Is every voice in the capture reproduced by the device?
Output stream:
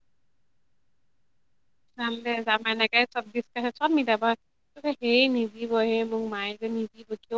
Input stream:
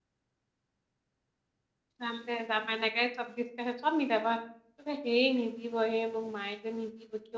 Yes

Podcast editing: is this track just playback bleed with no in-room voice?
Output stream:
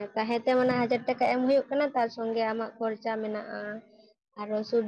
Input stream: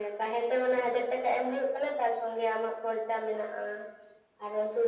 Yes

